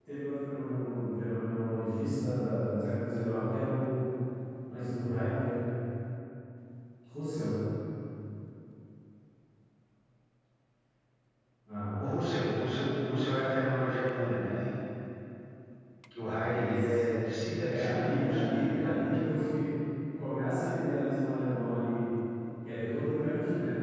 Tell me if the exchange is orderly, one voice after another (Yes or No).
No